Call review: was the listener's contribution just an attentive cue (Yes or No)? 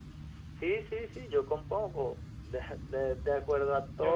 Yes